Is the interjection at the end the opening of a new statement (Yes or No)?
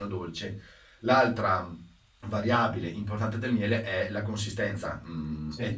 No